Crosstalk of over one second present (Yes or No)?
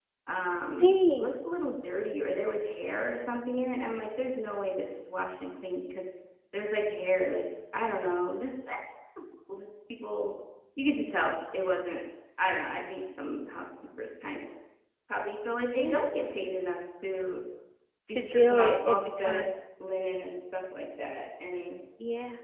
Yes